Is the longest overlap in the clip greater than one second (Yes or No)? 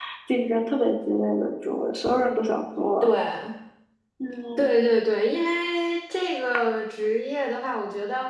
No